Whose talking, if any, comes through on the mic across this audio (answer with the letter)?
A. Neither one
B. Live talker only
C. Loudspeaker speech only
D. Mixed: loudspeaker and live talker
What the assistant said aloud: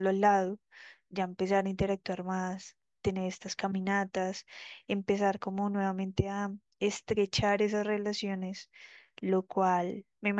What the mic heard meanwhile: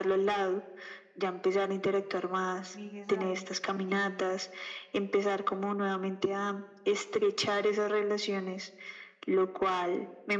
D